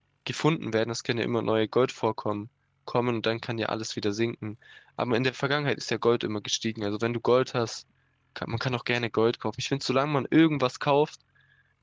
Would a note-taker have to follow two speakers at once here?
No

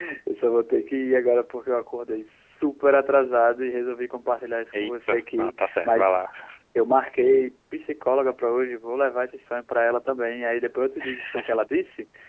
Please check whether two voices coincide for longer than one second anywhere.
Yes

